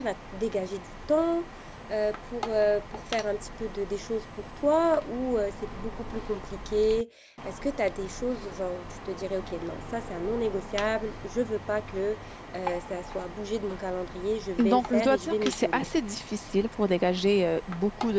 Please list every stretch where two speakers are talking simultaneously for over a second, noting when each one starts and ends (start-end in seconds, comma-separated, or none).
14.6-15.9